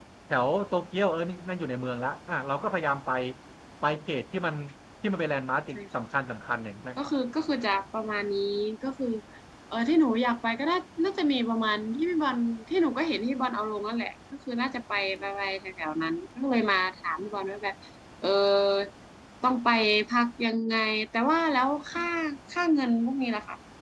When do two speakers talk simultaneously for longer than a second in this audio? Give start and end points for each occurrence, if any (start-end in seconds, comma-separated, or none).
none